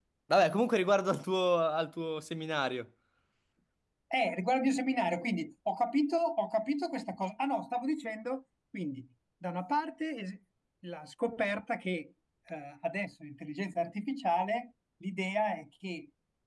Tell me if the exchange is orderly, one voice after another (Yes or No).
Yes